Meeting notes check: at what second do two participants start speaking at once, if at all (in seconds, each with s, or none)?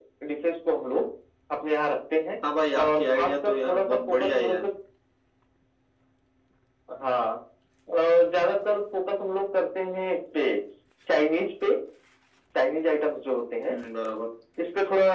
2.8 s